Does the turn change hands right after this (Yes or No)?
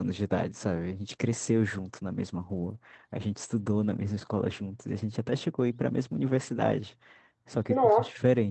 No